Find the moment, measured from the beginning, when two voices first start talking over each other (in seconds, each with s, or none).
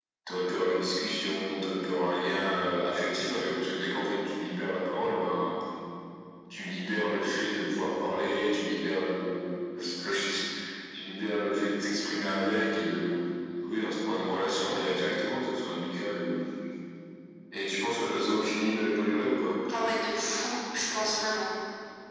none